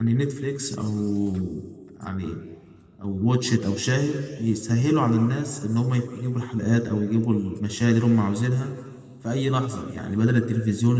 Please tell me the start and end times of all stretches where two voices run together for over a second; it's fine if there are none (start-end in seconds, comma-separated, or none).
none